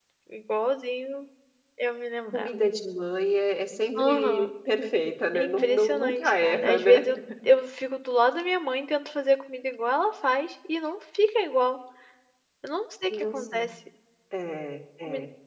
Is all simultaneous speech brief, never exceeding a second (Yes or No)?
No